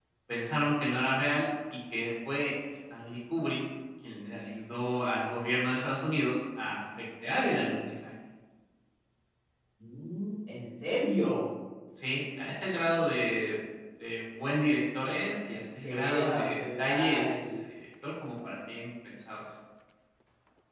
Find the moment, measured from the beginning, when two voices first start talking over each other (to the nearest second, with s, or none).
16 s